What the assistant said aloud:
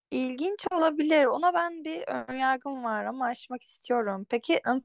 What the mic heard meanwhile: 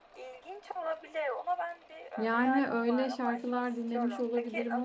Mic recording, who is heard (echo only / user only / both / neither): both